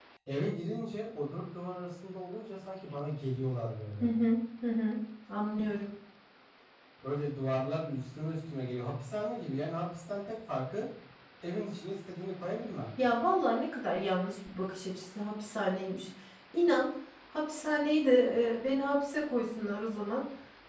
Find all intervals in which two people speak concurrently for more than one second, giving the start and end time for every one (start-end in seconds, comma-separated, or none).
none